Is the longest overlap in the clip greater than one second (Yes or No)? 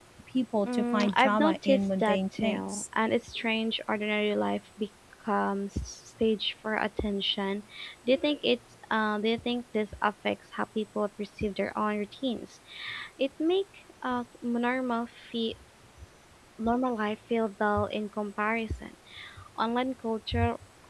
Yes